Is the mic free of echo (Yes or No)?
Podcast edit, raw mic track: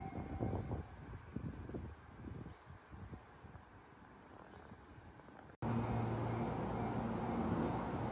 Yes